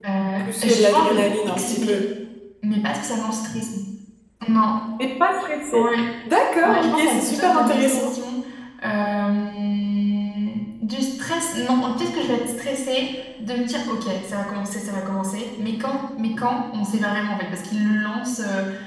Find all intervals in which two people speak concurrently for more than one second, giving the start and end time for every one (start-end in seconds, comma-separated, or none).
0.6-2.0, 6.6-8.1